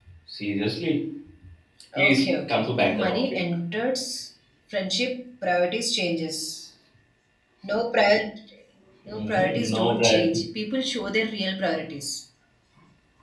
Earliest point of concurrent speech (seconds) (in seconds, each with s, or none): 2.0 s